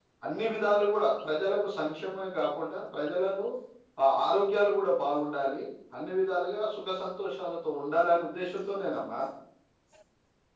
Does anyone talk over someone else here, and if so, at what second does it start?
none

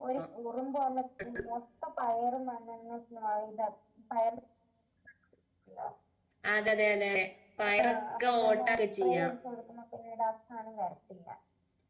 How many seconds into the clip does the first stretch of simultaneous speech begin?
7.8 s

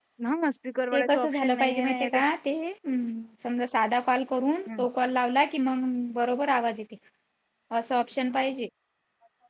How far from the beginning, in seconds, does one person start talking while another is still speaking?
0.9 s

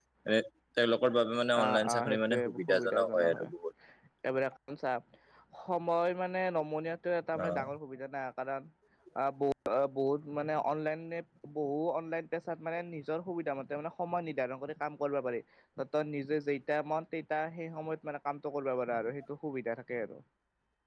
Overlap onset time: 1.6 s

